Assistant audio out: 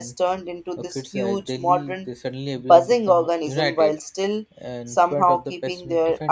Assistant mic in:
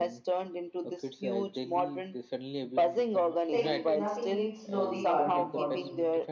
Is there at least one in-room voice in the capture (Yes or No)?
Yes